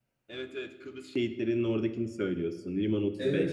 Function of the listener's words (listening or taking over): listening